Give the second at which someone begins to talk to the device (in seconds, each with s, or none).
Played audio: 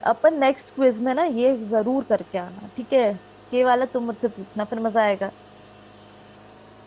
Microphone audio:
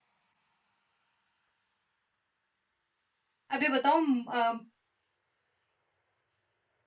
3.5 s